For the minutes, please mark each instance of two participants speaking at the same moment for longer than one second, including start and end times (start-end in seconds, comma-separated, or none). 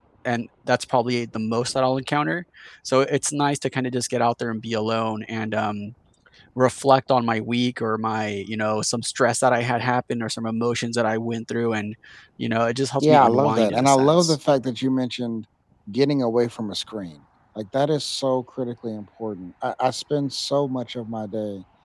13.0-14.4